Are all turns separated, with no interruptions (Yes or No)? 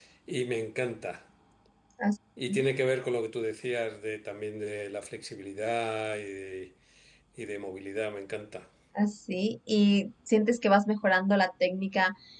Yes